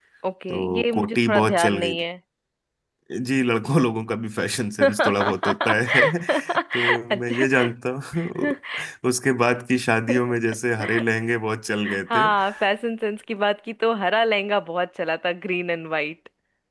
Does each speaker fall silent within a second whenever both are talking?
No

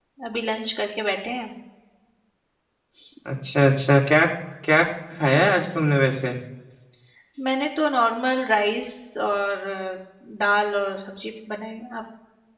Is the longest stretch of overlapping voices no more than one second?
Yes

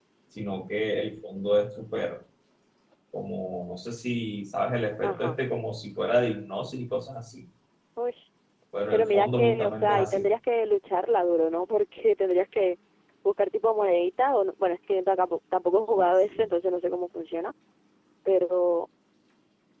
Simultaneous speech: Yes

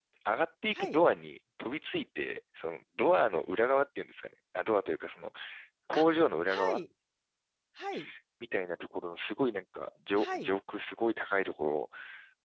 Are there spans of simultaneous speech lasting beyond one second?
No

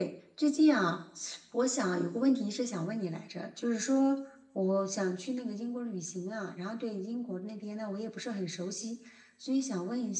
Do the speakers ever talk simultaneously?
No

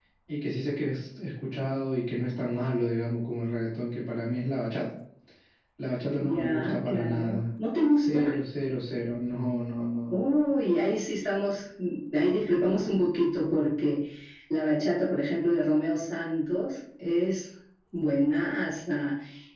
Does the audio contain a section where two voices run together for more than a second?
Yes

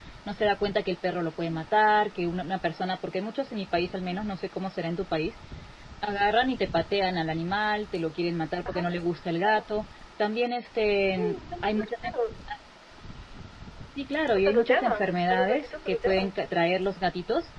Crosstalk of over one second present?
Yes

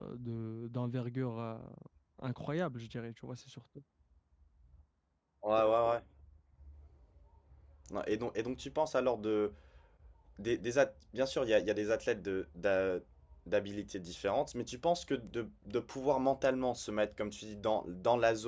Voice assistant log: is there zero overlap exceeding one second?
Yes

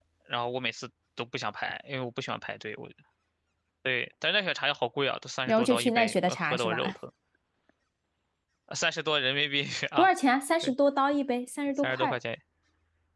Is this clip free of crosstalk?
No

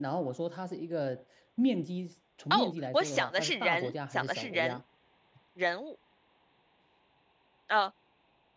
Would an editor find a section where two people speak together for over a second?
Yes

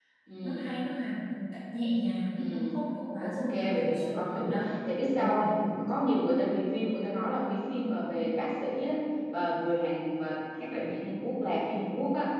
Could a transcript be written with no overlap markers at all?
No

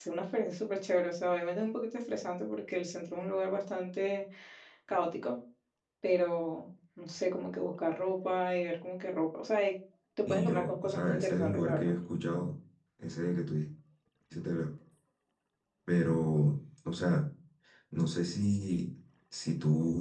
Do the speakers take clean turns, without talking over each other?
No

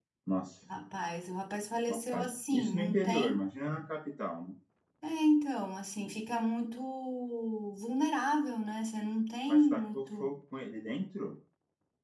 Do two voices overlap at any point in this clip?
Yes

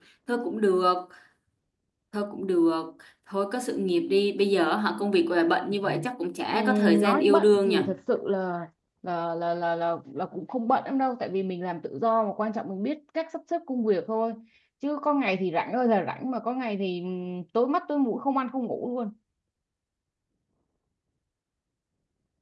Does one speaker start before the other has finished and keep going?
Yes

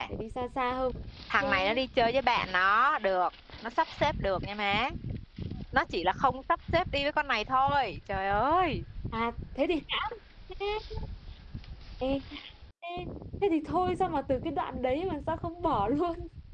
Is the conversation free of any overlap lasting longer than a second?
Yes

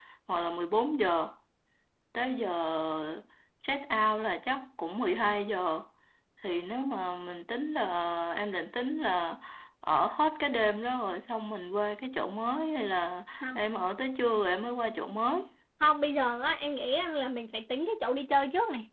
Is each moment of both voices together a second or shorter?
Yes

